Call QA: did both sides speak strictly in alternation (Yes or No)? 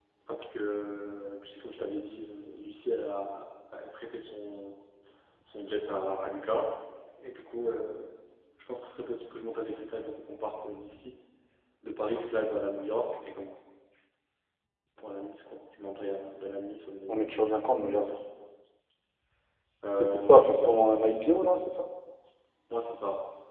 No